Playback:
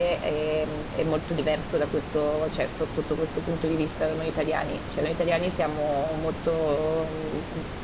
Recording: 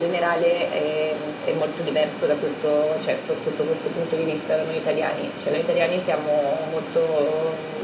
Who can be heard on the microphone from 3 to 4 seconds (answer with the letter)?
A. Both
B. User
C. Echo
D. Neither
C